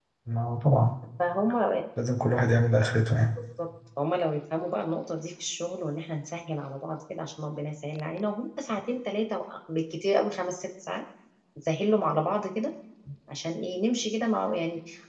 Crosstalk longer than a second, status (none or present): none